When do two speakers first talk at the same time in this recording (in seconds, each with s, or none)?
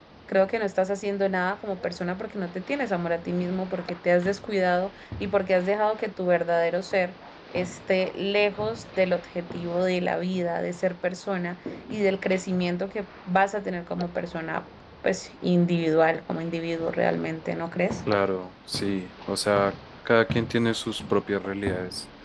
none